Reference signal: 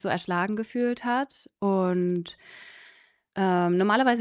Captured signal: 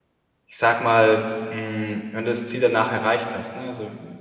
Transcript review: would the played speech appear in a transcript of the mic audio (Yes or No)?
No